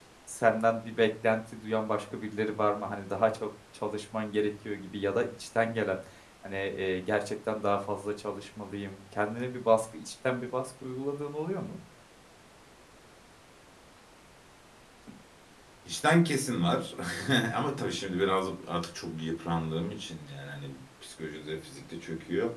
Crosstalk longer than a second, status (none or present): none